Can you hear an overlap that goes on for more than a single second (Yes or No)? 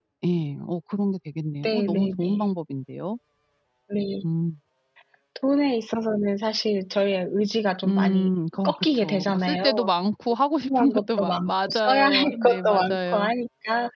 Yes